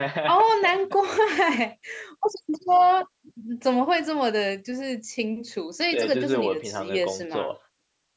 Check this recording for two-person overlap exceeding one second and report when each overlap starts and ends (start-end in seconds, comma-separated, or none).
5.9-7.5